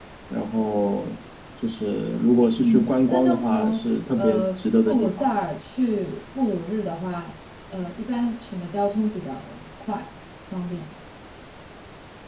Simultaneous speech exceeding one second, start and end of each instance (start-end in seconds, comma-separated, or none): 2.6-5.3